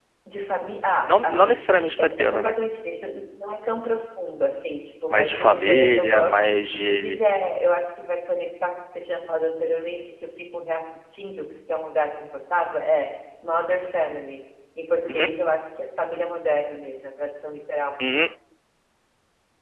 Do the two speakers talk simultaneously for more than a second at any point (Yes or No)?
Yes